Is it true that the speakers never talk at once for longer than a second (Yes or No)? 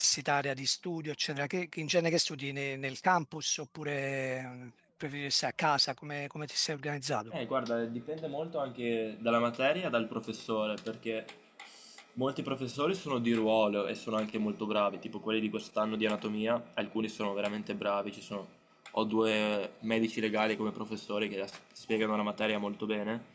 Yes